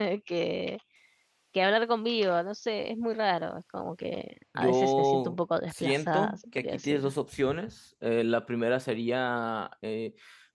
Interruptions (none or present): present